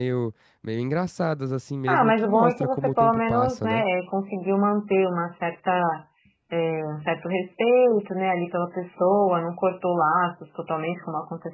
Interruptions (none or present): present